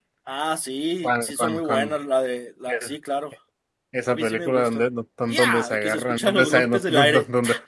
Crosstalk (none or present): present